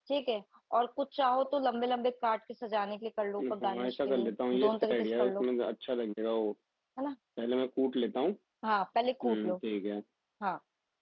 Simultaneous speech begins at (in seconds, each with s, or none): 3.4 s